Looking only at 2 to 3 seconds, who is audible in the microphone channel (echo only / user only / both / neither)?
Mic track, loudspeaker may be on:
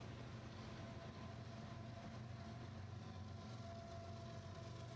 neither